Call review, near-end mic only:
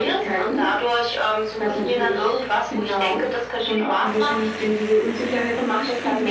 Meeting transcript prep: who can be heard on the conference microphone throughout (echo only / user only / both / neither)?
echo only